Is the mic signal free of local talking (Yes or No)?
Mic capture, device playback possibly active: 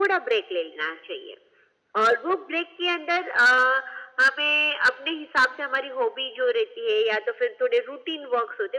Yes